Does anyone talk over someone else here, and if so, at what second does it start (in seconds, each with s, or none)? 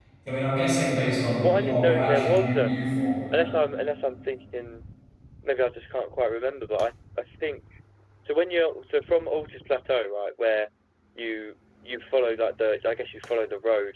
1.4 s